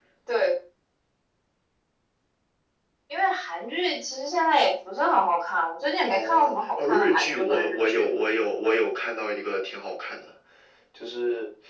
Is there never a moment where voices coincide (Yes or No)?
No